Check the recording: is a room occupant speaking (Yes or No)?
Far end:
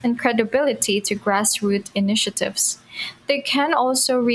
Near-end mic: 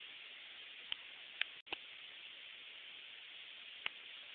No